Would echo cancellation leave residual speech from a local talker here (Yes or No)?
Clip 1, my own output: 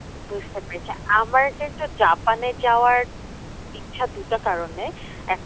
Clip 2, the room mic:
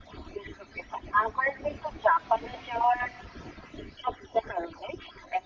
No